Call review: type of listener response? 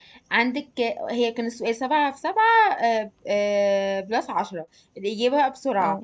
listening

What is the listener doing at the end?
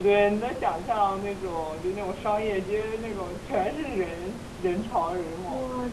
taking over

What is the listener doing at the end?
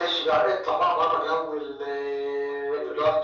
listening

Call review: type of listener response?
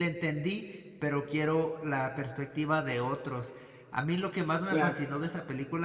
listening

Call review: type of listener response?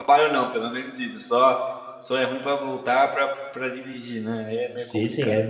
taking over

